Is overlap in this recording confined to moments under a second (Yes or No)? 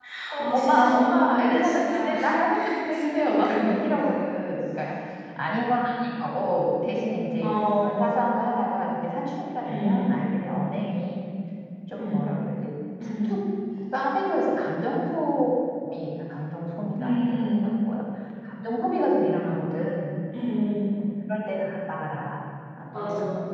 No